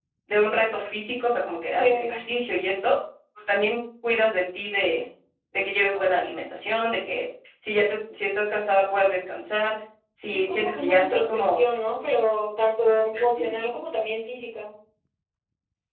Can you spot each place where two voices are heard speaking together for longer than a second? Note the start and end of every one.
10.3-11.6

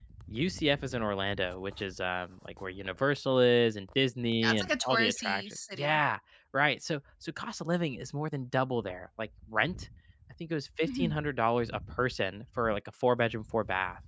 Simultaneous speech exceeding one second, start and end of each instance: 4.4-6.0

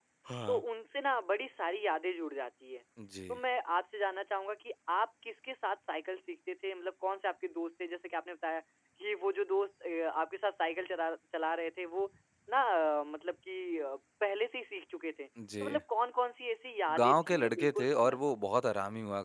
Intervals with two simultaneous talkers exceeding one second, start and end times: 17.0-18.4

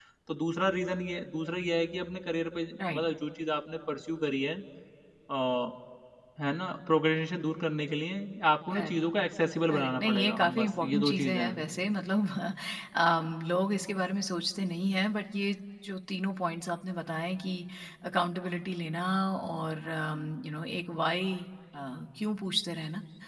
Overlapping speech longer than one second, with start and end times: 9.7-11.5

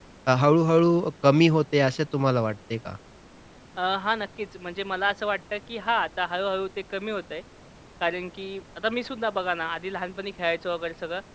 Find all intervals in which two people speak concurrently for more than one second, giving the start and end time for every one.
none

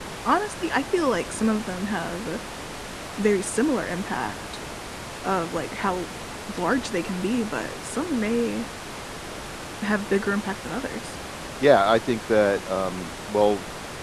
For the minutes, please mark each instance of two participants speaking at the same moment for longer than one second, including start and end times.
none

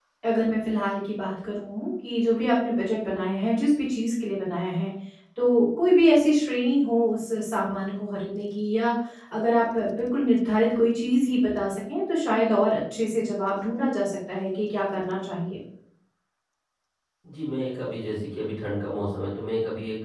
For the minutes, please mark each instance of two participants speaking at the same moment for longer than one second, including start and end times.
none

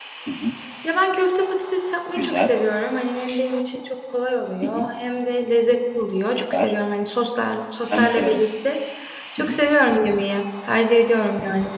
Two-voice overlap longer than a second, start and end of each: none

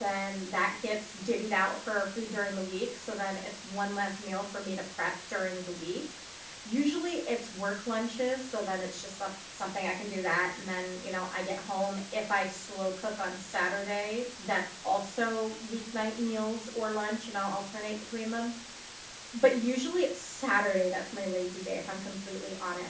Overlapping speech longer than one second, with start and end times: none

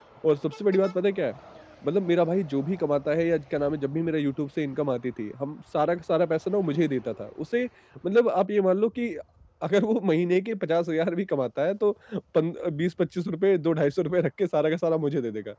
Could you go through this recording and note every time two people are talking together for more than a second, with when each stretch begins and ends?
none

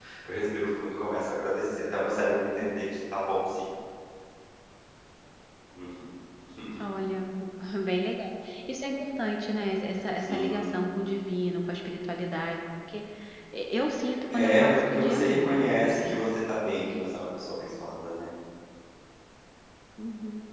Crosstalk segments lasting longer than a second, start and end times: 14.3-16.1

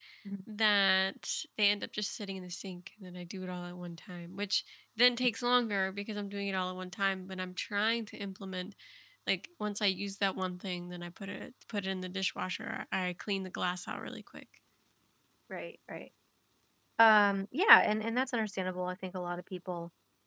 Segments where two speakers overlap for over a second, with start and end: none

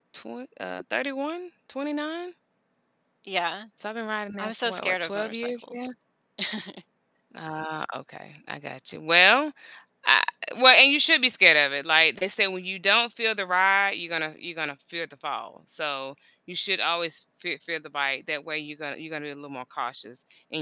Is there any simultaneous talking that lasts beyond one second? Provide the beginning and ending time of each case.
4.4-5.9

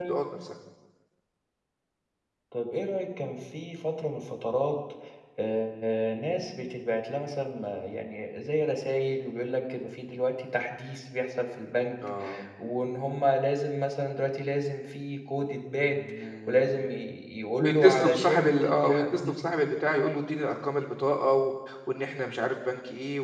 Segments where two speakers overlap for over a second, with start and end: 17.6-19.3

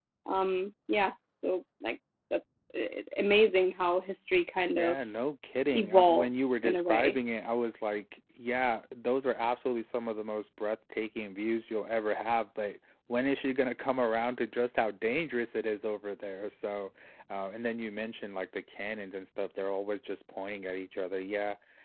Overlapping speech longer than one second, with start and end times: 5.7-7.2

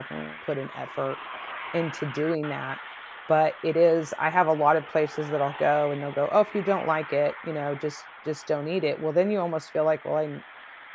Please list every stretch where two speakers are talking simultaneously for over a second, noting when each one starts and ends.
none

